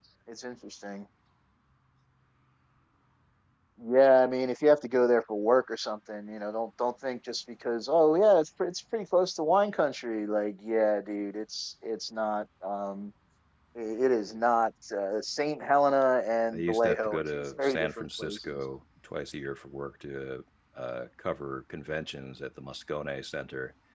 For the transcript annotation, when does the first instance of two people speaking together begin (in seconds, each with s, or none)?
16.5 s